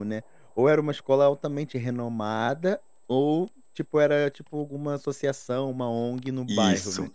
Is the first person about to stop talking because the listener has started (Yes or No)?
Yes